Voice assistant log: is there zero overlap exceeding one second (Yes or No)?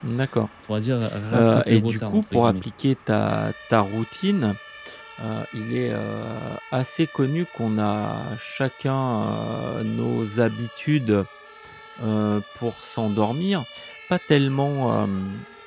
No